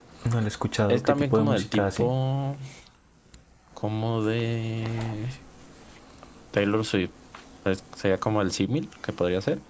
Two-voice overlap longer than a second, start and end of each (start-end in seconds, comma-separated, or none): 0.9-2.1